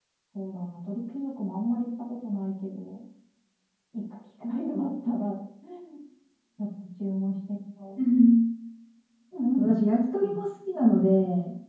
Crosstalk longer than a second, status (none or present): none